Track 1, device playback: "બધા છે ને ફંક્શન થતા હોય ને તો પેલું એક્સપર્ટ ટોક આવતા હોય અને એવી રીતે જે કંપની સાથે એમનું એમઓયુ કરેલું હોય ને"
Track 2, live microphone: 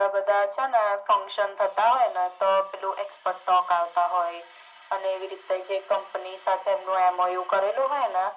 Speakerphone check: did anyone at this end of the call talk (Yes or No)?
No